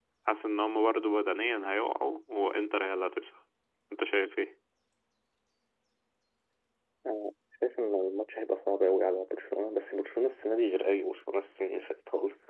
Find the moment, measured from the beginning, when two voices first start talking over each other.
none

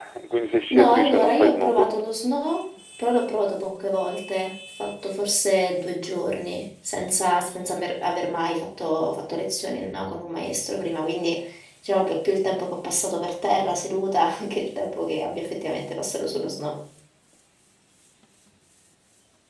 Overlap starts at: 1 s

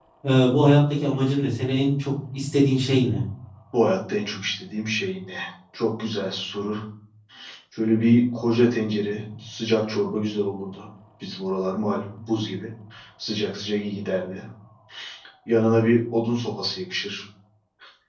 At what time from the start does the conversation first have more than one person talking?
none

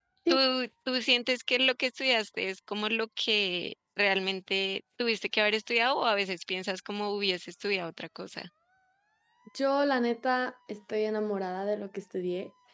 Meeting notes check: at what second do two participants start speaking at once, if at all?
none

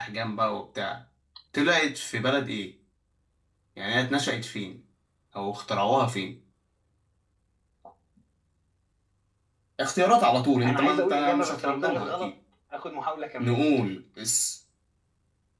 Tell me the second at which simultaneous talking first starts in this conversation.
11 s

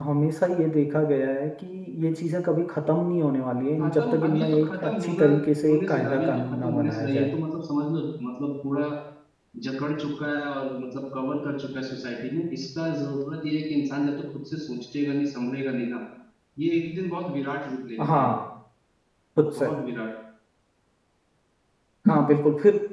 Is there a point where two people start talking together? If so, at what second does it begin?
4 s

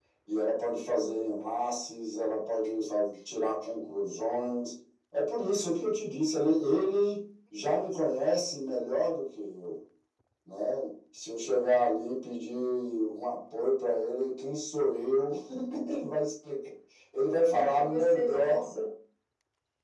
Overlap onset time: 17 s

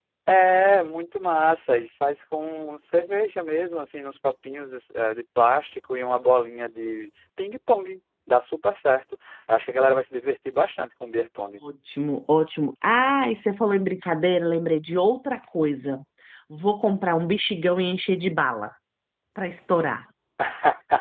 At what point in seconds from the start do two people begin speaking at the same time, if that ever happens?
none

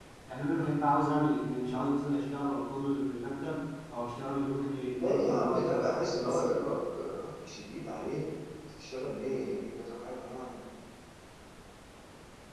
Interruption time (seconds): 5 s

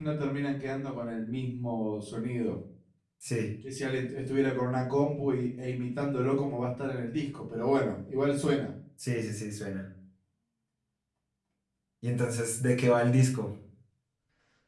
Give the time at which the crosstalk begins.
none

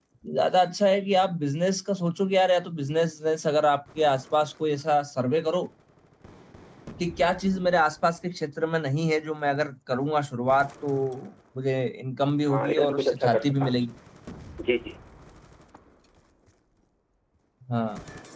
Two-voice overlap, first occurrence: 12 s

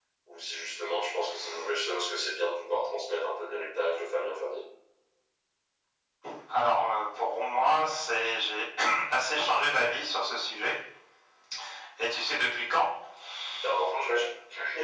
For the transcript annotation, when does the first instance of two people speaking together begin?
none

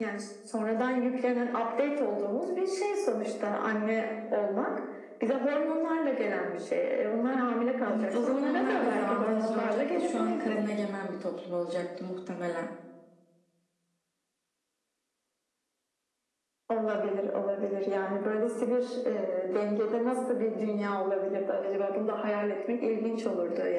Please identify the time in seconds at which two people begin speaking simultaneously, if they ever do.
8 s

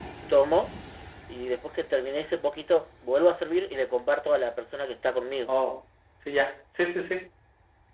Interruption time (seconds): none

